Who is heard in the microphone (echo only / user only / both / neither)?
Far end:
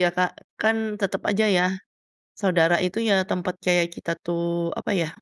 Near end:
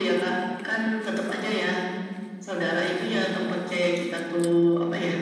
echo only